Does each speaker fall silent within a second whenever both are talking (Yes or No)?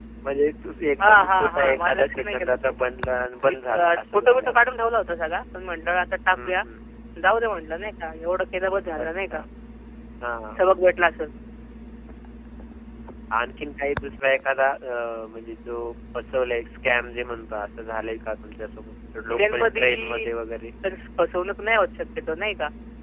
No